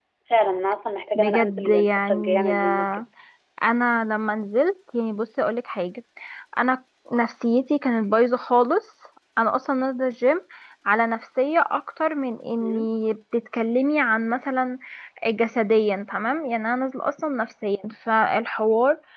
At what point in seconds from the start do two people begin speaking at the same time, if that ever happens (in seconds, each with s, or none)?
1.1 s